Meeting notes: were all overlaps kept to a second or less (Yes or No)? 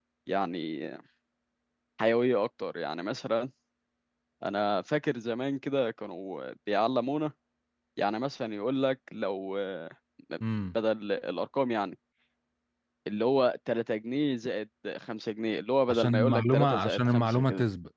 No